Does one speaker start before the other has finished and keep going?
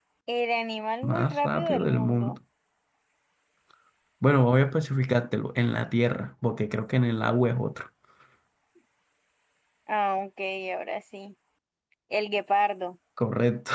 Yes, from 1.0 s

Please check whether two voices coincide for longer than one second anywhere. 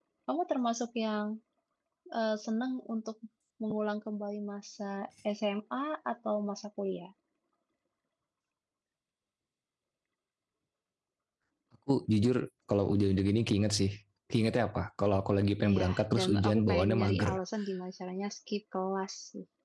Yes, from 15.6 s

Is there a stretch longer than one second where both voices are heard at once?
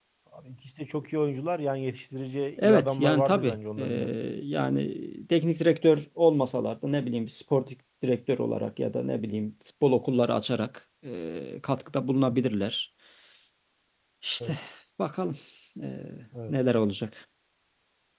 Yes, from 2.6 s

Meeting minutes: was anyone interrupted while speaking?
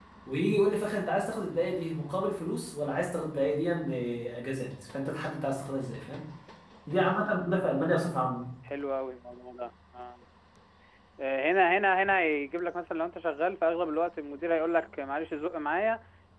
No

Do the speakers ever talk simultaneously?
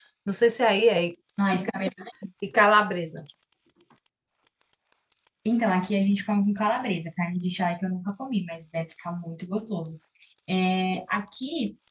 No

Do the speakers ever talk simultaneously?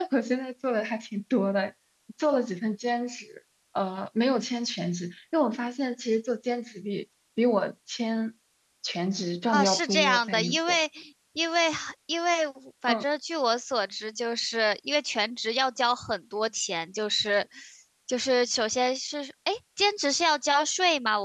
Yes, from 9.5 s

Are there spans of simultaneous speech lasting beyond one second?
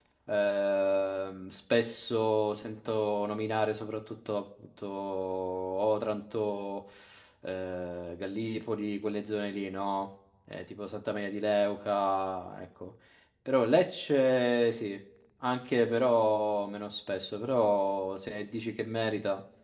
No

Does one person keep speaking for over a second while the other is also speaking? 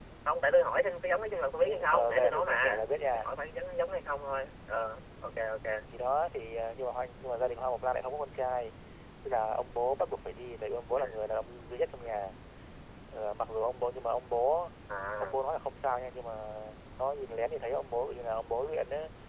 Yes, from 1.6 s

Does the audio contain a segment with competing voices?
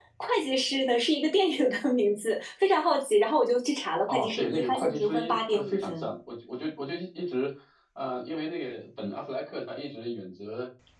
Yes, from 4.1 s

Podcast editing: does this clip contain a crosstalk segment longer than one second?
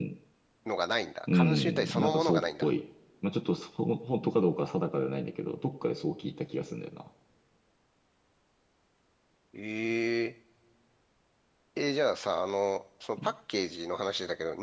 Yes, from 1.3 s

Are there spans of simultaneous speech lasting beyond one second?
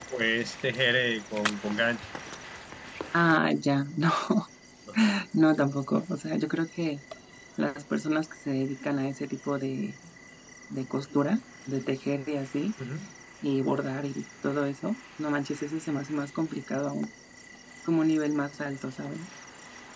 No

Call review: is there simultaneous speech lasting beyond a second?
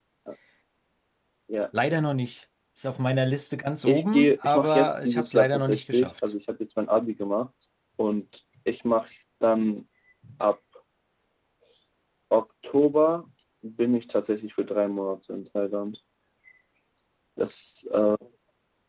Yes, from 3.8 s

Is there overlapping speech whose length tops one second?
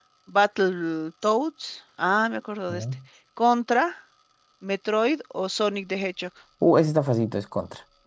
No

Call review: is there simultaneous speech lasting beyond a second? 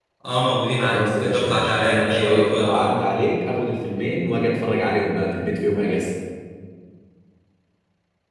Yes, from 0.8 s

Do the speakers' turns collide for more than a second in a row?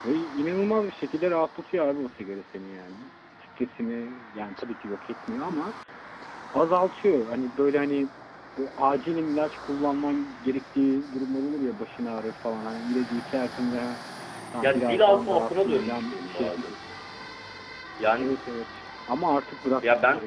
Yes, from 14.6 s

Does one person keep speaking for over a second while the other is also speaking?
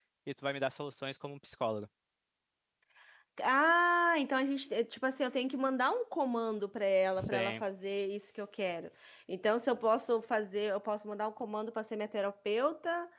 No

